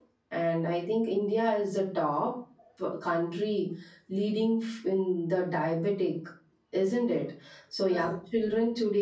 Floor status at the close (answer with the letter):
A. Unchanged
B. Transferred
A